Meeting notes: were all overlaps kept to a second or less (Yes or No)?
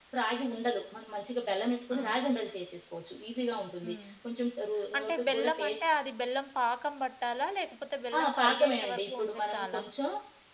No